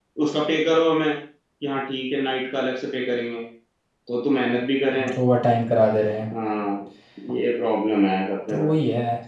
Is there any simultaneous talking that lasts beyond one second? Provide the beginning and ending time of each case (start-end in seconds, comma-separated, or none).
none